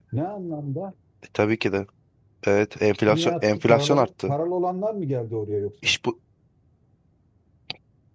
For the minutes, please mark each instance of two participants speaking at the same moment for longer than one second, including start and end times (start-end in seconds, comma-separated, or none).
3.1-4.3